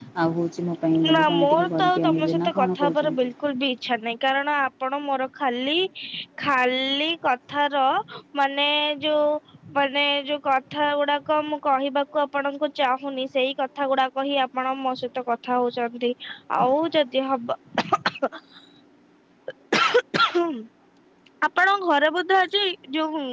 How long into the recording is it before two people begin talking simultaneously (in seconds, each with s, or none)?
1.1 s